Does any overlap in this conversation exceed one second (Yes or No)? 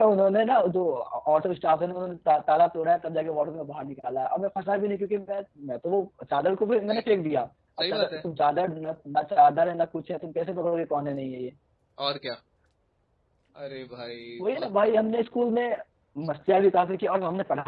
No